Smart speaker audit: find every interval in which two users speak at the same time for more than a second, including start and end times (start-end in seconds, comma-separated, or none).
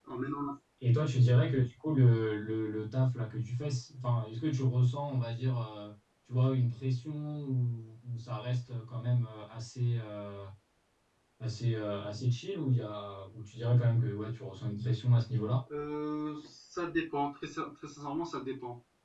none